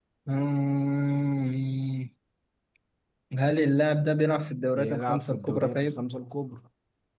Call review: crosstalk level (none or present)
present